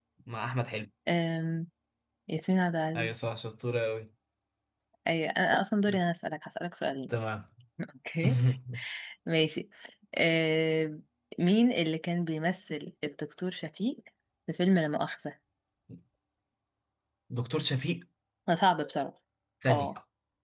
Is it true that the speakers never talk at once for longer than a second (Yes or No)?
Yes